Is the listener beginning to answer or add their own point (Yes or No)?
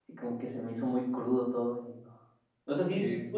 No